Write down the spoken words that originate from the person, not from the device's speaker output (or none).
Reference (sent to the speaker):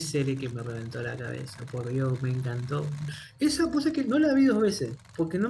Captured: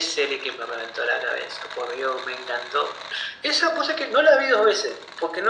none